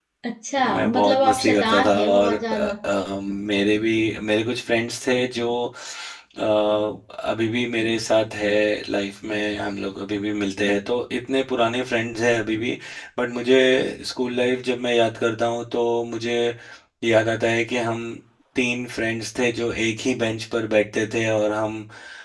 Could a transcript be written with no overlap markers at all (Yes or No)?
No